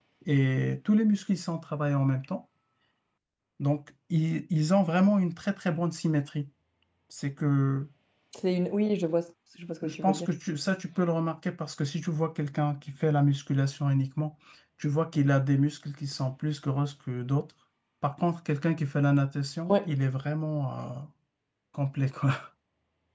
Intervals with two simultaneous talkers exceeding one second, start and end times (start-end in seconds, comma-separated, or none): none